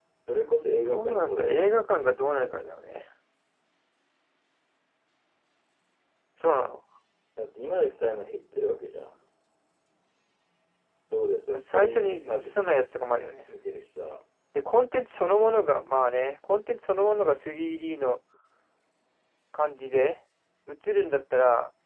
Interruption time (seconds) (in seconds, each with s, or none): 0.8 s